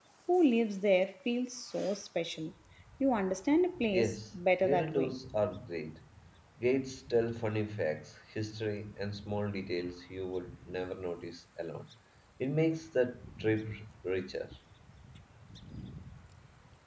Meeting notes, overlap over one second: present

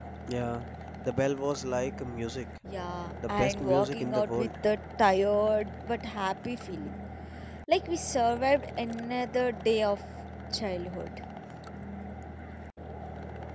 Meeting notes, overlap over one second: present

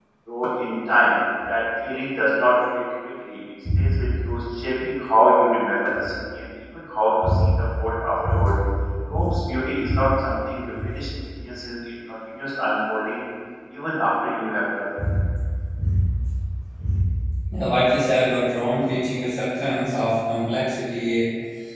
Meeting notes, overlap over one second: none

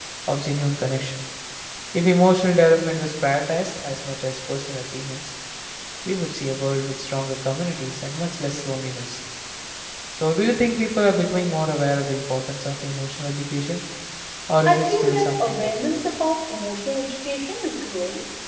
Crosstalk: present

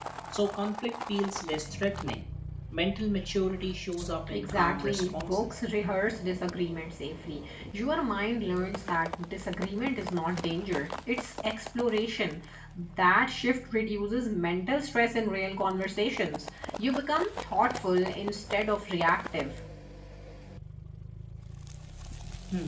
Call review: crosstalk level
present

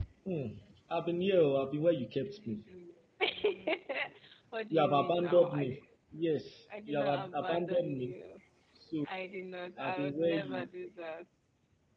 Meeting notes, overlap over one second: present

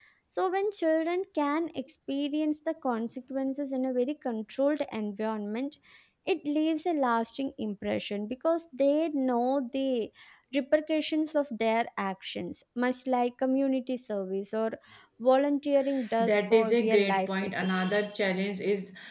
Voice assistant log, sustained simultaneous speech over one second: present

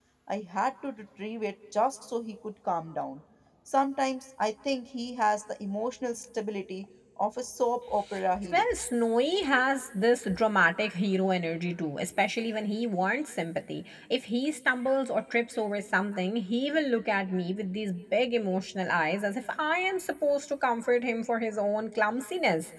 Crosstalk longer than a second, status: none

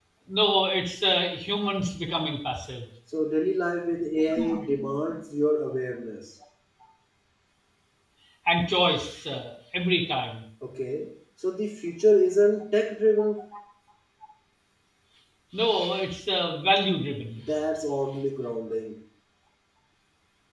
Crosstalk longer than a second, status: none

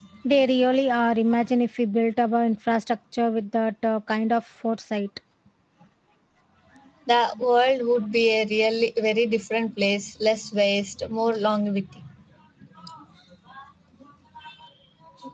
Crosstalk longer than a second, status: none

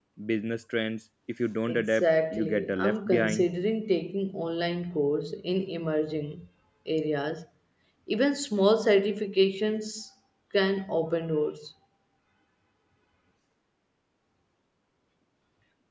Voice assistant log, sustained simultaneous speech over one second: present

